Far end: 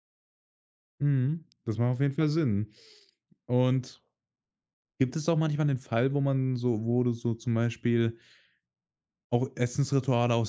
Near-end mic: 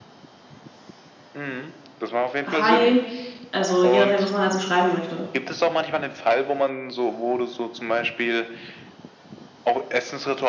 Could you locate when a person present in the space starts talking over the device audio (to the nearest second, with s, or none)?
2 s